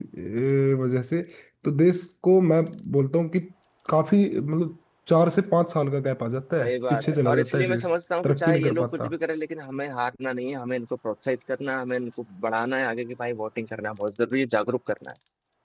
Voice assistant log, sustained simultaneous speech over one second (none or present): present